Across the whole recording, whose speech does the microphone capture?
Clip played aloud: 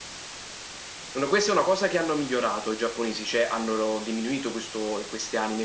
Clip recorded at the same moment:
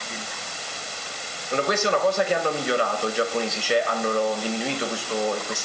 echo only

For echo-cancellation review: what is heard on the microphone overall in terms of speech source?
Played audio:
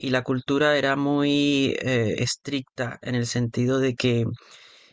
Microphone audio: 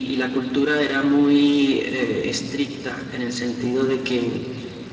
echo only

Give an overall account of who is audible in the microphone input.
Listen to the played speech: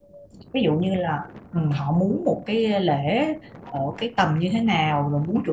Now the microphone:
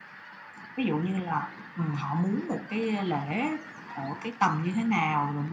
echo only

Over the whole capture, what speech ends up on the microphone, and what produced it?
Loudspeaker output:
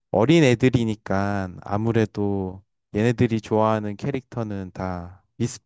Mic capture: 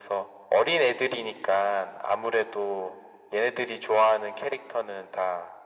echo only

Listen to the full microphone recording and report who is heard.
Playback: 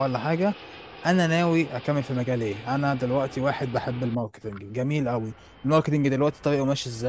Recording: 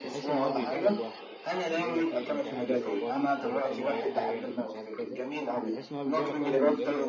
both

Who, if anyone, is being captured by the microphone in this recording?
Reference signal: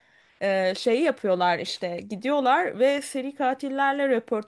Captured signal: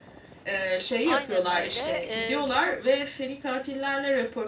both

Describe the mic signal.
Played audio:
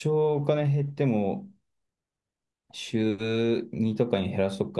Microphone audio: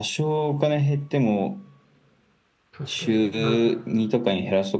both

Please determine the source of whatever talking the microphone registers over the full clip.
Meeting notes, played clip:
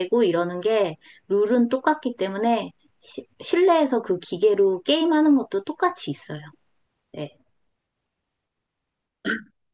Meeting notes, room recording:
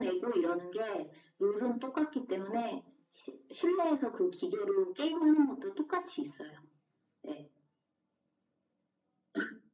echo only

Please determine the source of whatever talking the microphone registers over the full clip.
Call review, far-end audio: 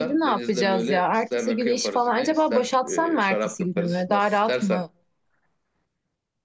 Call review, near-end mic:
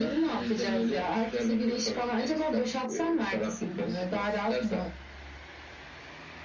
echo only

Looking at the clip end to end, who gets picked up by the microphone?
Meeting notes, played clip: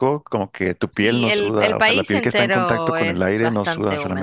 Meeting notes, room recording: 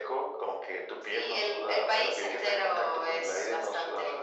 echo only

